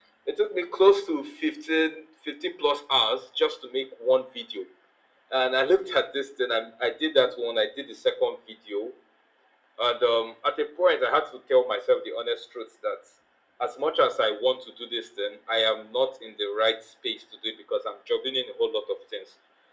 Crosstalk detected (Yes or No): No